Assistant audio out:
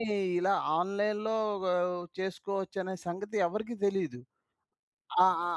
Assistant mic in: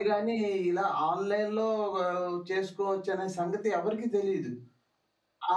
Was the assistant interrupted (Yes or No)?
No